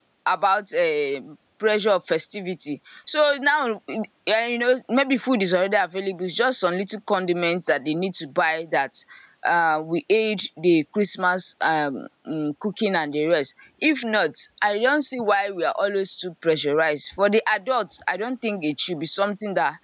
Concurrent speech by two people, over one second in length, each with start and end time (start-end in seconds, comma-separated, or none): none